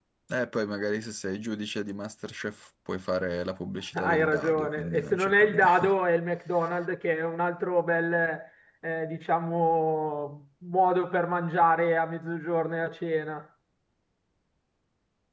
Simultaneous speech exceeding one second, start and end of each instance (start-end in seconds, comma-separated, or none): 3.9-5.9